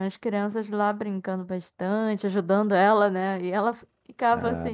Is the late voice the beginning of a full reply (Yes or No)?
No